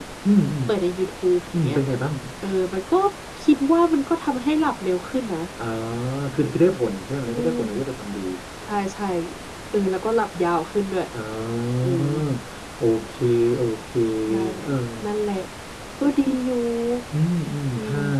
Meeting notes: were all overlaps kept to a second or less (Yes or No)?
Yes